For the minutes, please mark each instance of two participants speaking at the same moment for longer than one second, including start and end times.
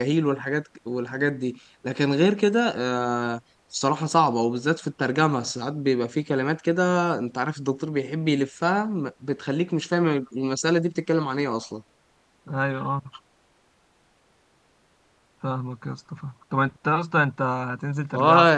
none

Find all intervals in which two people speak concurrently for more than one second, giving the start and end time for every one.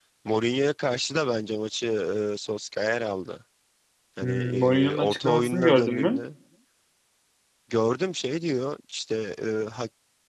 4.2-6.2

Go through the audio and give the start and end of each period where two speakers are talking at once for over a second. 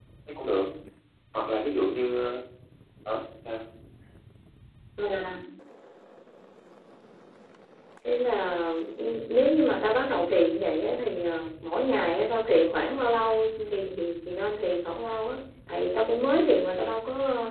none

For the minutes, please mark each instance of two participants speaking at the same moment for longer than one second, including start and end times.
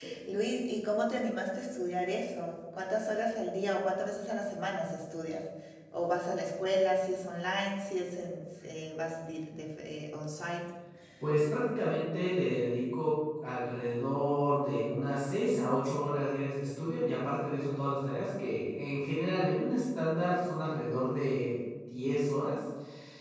none

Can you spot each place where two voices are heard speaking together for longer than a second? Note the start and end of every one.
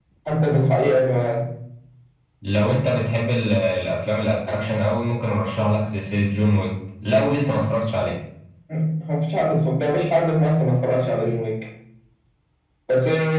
none

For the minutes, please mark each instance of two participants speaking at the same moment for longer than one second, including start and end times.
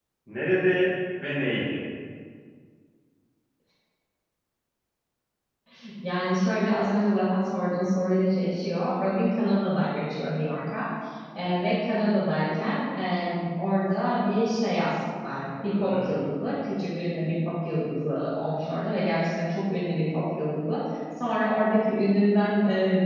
none

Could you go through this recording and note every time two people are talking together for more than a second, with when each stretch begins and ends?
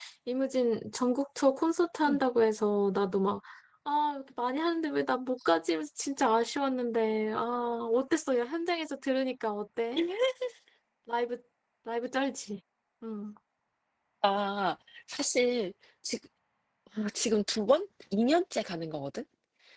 none

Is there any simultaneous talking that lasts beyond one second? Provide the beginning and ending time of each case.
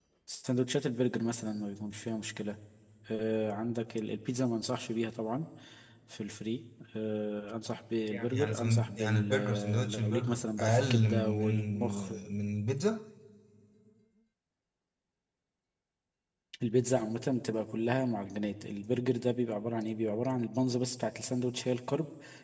8.1-12.1

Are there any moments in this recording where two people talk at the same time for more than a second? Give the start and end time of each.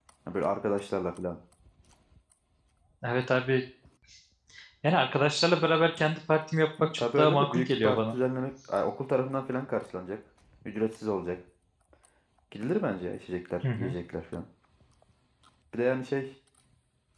6.9-8.2

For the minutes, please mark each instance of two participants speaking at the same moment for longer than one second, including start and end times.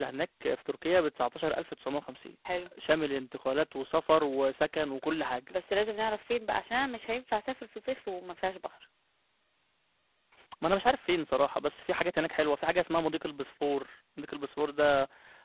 none

